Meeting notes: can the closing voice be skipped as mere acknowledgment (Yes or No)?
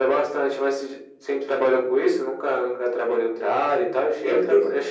Yes